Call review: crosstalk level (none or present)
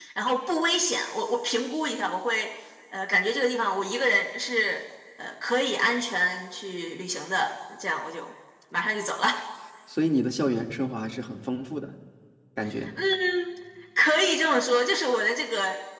none